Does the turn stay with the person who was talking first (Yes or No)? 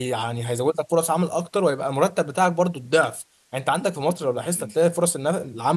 Yes